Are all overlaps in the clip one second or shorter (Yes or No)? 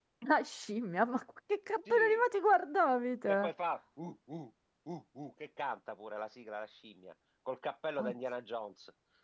Yes